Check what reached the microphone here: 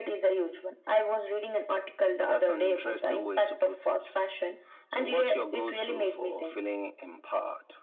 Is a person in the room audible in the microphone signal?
No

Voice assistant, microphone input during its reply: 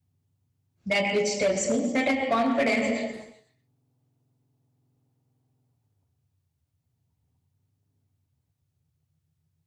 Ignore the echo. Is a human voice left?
Yes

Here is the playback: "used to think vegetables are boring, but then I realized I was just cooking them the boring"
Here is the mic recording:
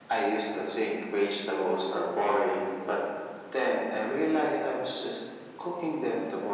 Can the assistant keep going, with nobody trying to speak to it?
Yes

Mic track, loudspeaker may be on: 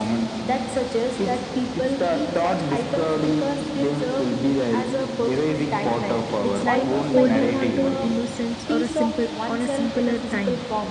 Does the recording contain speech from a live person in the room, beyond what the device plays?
Yes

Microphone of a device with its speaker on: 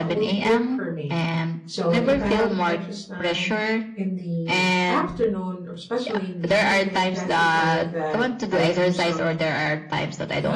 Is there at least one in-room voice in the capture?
Yes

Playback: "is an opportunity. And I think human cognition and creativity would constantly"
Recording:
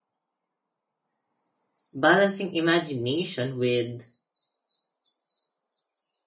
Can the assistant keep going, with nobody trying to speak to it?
No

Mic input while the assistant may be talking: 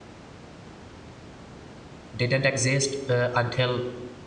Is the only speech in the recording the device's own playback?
No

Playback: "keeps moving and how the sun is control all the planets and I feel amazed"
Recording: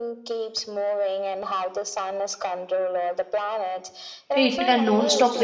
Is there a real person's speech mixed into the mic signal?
Yes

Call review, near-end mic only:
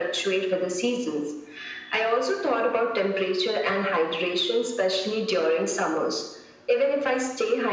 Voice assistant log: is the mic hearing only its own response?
Yes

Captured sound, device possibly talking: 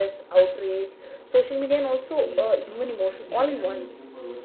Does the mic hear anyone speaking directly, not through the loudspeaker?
Yes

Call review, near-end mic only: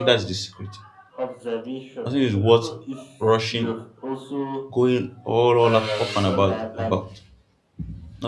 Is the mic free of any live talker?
No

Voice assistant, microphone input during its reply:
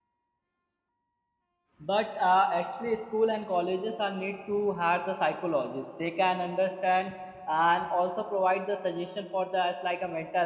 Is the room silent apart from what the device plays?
No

